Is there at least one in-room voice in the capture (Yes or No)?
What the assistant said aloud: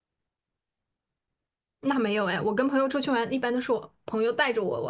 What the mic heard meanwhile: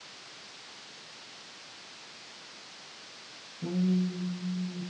Yes